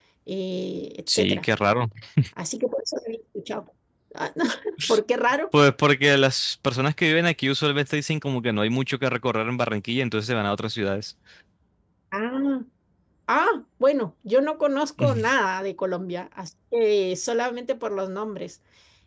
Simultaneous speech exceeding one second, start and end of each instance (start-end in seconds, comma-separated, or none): none